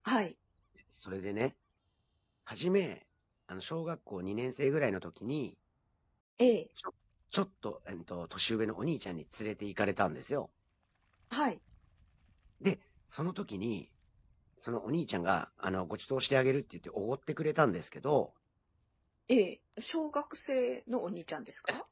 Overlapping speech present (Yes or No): No